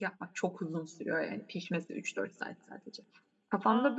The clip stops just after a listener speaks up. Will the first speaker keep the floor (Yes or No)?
Yes